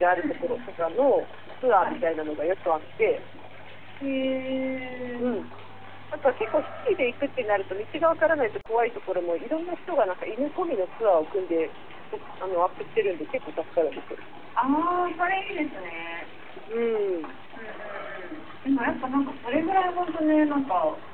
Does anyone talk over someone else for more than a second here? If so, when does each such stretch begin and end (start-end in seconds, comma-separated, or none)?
none